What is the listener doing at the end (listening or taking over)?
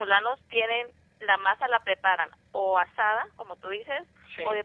listening